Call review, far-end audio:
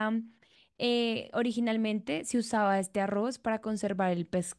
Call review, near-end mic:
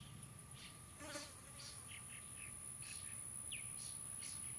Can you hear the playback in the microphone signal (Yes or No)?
No